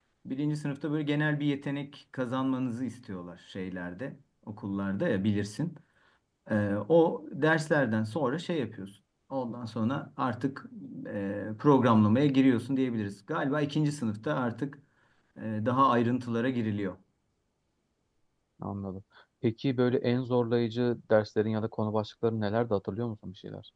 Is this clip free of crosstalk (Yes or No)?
Yes